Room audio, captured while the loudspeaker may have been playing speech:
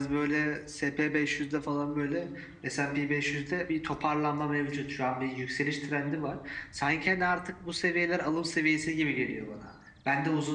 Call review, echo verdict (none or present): present